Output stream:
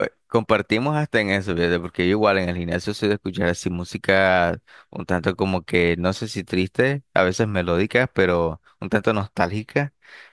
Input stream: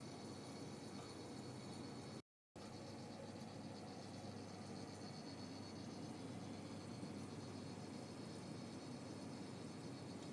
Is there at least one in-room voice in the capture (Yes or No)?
No